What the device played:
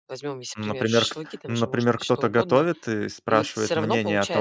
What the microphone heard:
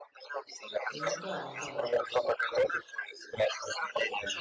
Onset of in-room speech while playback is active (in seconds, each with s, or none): 1.0 s